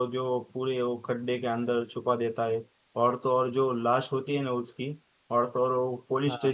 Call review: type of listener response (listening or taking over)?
listening